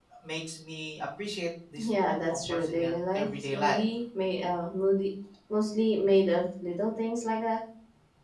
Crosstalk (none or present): present